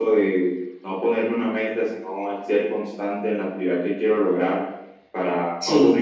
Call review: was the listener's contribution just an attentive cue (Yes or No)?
Yes